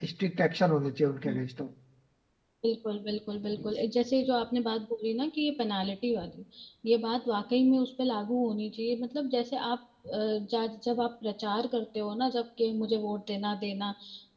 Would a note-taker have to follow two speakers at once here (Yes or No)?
No